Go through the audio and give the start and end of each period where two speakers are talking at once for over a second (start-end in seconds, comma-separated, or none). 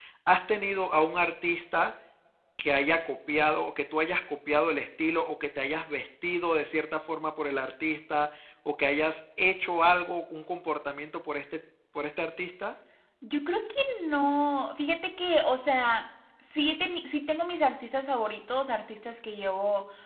none